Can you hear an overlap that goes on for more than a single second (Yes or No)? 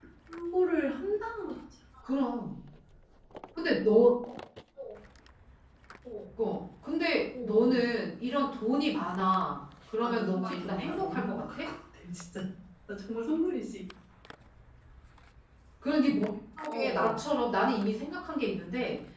Yes